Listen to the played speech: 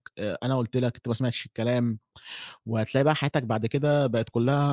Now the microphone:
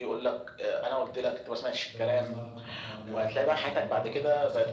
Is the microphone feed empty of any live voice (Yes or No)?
No